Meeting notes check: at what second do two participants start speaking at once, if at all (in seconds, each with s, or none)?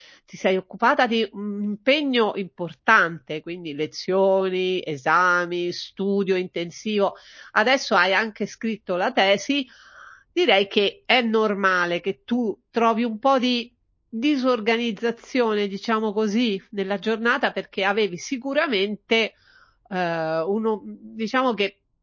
none